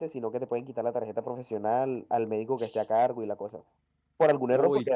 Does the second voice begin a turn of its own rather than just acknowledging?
No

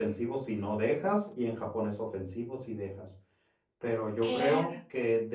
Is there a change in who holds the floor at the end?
No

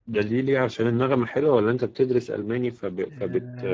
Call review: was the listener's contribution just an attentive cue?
No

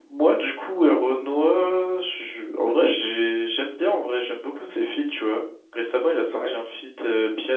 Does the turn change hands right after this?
No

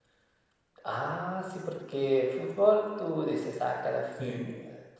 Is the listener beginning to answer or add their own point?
No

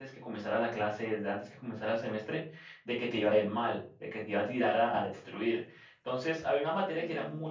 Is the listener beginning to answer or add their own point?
No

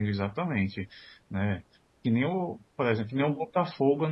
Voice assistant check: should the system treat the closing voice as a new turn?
No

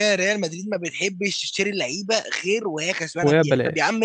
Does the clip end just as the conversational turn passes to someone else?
No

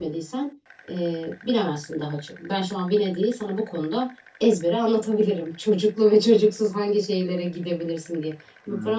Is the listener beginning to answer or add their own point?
No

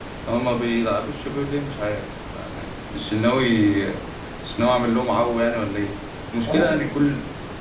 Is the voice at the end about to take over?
No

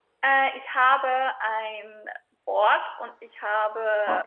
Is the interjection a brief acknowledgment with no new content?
Yes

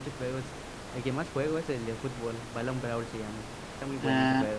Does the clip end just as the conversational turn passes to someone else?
Yes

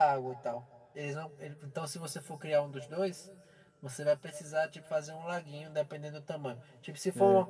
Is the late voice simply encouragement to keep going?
Yes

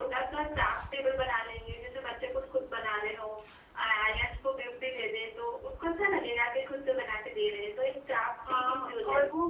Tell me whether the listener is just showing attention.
No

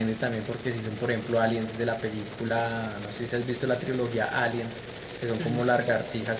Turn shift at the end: No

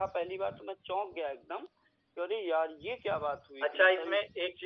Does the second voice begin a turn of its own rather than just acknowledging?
Yes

